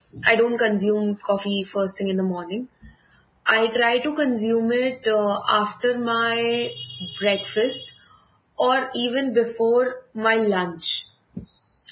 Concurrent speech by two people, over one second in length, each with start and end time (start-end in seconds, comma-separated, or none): none